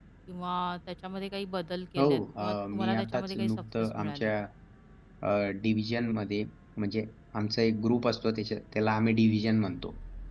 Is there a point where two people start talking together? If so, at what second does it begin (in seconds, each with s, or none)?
2.0 s